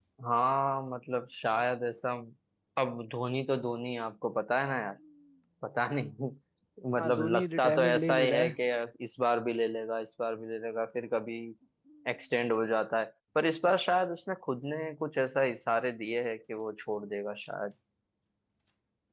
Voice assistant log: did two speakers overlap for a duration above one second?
Yes, from 7.0 s

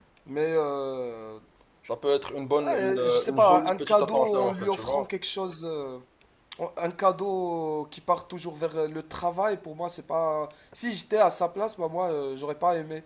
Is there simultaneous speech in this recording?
Yes, from 2.6 s

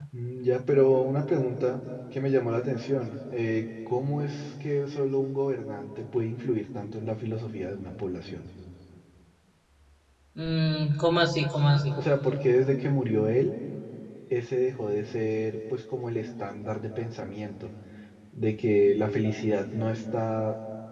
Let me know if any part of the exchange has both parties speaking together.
No

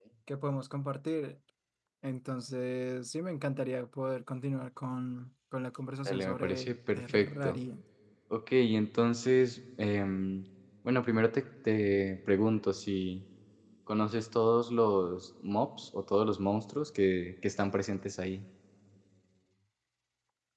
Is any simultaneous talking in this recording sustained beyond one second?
Yes, from 6.1 s

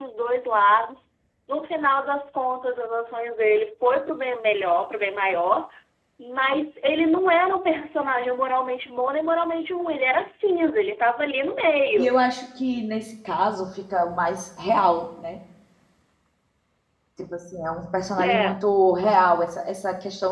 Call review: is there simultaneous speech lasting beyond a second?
No

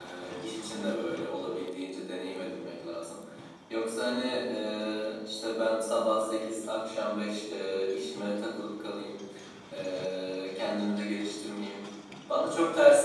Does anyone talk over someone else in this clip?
No

